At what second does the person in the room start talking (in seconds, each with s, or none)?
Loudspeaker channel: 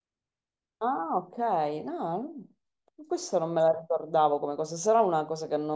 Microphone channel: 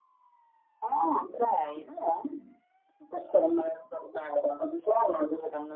none